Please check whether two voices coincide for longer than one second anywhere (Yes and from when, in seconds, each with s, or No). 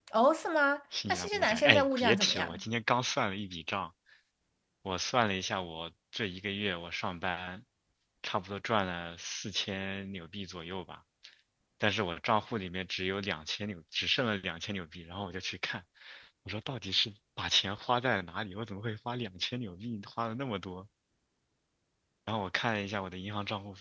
Yes, from 1.1 s